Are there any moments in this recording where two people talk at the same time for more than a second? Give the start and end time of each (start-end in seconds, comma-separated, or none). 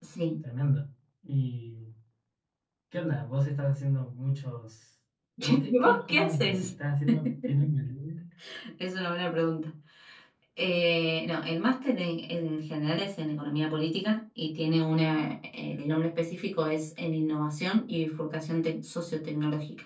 5.4-6.7